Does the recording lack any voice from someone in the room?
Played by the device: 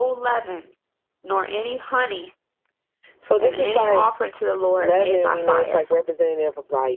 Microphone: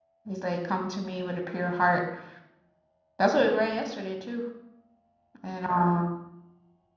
No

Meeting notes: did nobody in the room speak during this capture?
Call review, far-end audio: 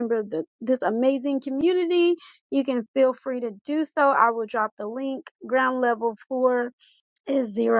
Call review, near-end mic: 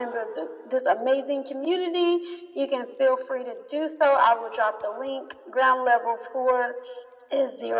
Yes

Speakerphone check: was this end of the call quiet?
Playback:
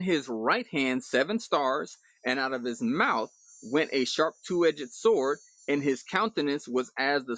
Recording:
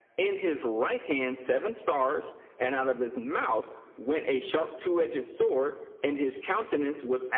Yes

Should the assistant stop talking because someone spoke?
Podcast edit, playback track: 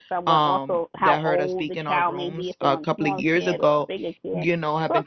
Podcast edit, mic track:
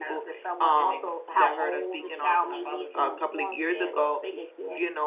Yes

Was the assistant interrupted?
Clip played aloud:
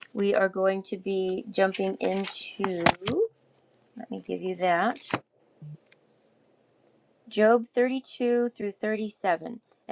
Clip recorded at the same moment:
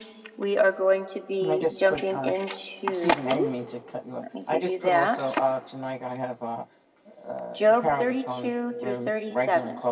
Yes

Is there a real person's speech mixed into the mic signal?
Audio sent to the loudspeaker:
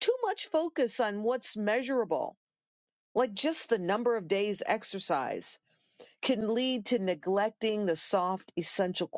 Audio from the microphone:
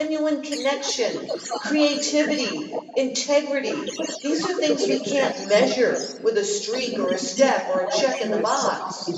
Yes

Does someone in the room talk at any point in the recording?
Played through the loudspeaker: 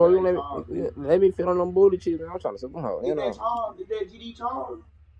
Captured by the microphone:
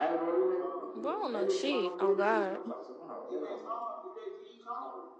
Yes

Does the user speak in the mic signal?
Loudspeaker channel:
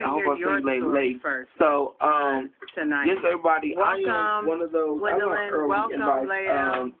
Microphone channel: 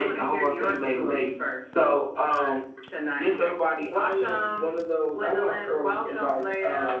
No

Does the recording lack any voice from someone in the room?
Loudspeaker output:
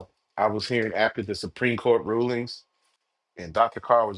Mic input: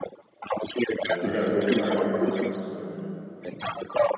No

